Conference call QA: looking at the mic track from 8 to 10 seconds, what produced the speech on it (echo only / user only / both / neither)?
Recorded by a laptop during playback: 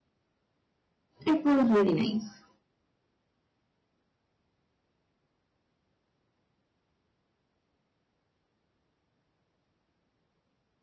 neither